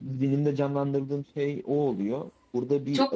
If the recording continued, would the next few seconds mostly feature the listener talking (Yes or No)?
Yes